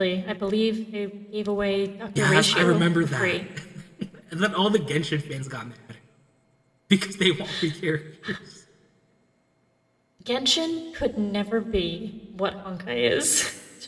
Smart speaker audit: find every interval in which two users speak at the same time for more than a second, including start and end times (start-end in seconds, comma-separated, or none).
2.2-3.4